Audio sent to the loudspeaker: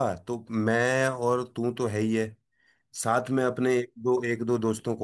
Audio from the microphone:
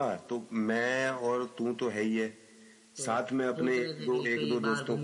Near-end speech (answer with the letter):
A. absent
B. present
B